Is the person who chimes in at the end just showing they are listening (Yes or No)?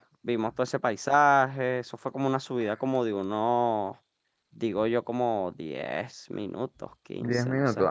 No